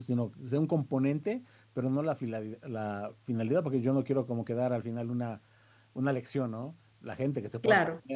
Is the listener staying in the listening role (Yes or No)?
Yes